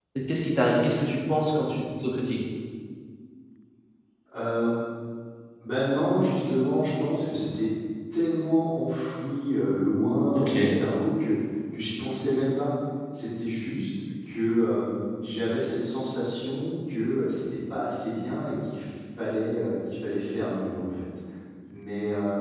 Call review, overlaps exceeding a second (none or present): none